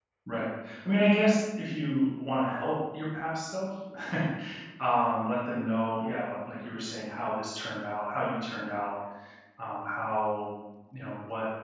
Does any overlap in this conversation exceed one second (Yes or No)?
No